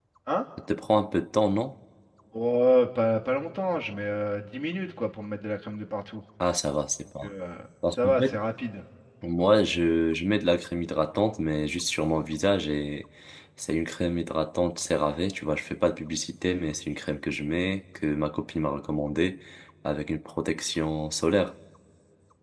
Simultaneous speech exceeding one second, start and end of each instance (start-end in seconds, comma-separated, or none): none